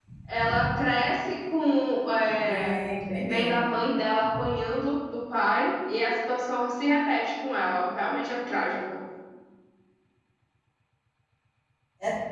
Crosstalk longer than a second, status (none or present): none